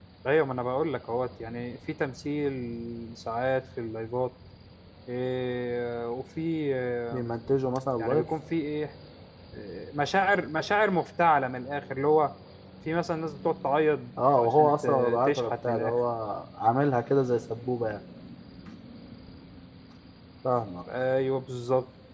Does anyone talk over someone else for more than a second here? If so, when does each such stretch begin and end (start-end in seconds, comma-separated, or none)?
14.4-16.0